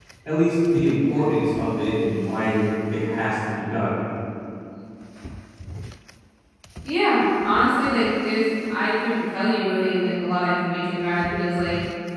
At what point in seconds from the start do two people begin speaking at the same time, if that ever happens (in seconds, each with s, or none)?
none